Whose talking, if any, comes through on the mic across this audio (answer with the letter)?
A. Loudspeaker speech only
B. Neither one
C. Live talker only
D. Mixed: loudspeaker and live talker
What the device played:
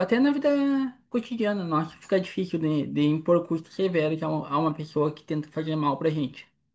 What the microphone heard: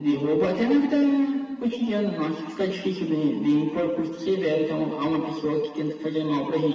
A